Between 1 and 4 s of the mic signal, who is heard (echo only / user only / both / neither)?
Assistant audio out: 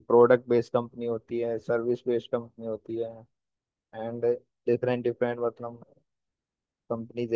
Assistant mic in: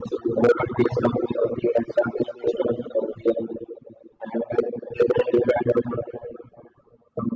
echo only